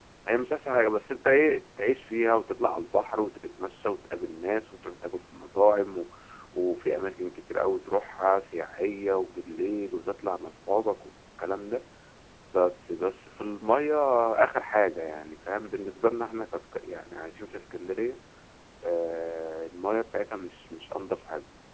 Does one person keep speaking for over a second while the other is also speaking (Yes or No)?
No